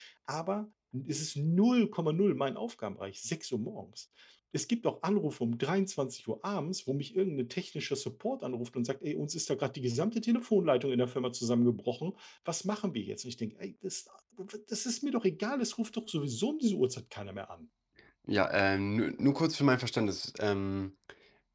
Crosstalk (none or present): none